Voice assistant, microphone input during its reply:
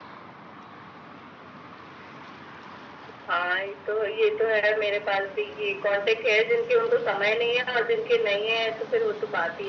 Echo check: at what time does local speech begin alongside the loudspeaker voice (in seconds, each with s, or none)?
none